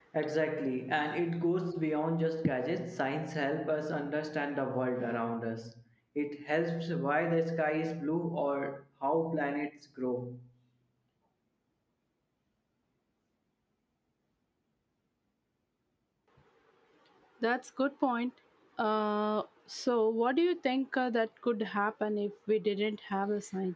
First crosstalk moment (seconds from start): none

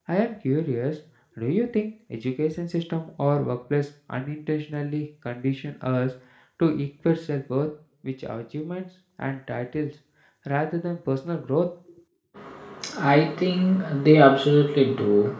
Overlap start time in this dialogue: none

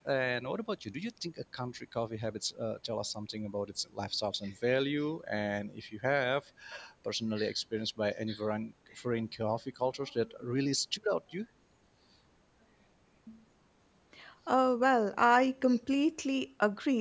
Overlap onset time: none

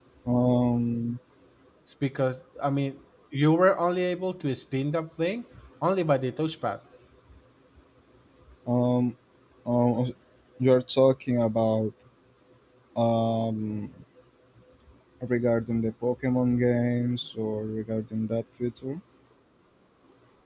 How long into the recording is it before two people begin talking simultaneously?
none

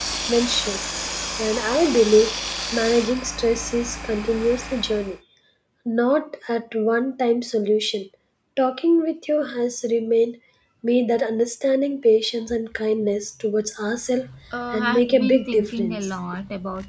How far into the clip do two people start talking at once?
14.7 s

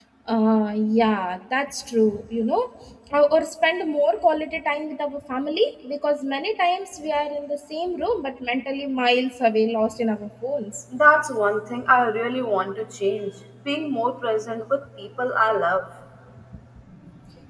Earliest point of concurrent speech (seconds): none

